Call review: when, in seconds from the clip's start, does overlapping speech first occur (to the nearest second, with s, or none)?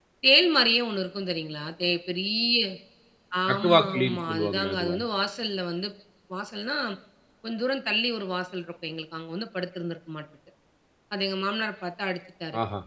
4 s